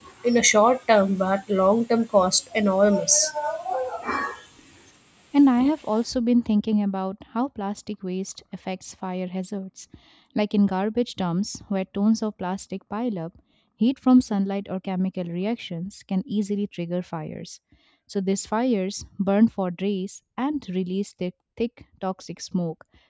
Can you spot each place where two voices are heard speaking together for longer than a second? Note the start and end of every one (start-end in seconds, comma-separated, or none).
none